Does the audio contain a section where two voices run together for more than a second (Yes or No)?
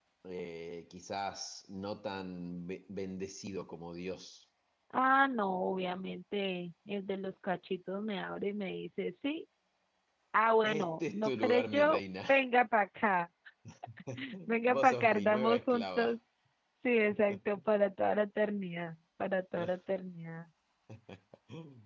Yes